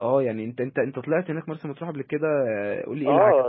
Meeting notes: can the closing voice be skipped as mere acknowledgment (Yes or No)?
No